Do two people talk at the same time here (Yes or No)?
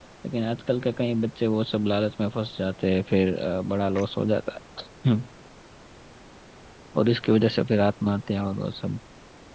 No